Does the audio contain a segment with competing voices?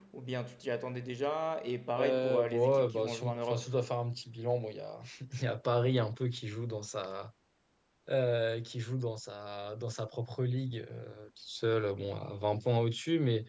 Yes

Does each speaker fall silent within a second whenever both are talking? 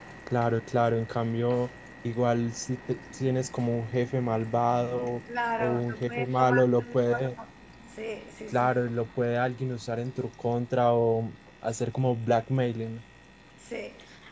No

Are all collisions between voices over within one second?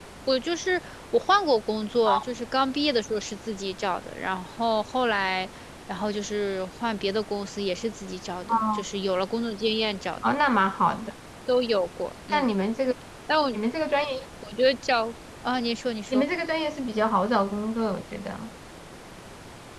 Yes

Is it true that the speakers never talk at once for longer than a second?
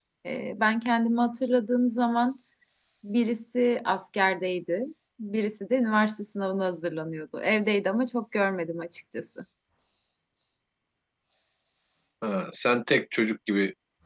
Yes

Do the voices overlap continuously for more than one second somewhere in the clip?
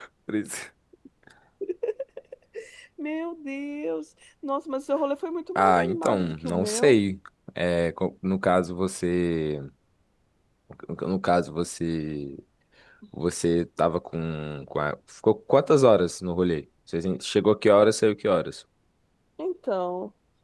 Yes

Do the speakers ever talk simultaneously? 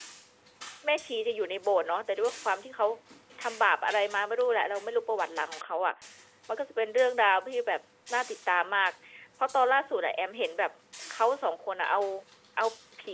No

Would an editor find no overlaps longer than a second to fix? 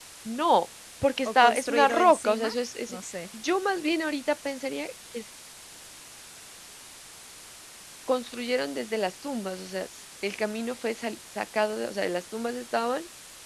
No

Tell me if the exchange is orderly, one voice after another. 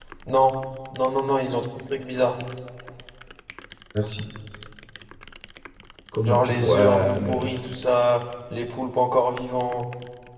No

